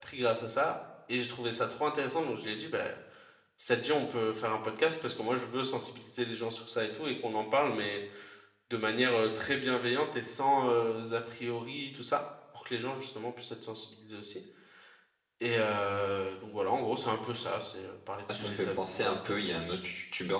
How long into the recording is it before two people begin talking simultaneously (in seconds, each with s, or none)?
18.3 s